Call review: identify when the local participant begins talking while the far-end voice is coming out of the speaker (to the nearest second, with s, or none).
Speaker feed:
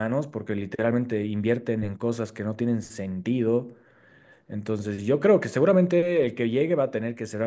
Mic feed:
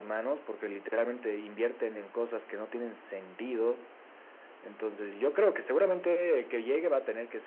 none